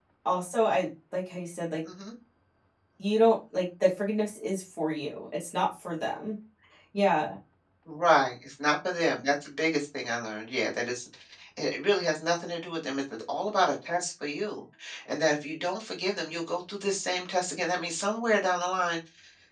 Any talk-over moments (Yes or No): No